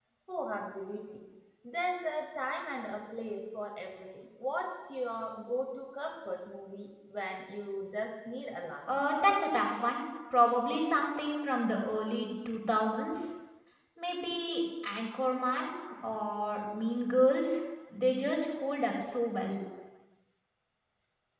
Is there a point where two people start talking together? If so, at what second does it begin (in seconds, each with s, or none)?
none